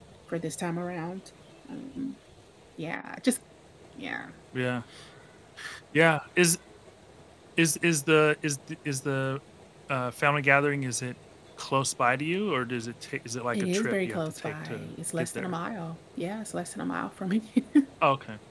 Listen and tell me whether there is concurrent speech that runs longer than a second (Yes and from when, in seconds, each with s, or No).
Yes, from 13.5 s